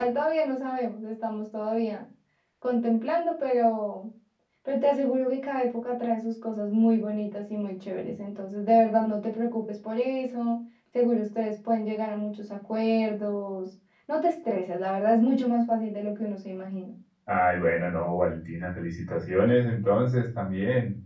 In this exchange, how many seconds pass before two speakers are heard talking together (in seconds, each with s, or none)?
none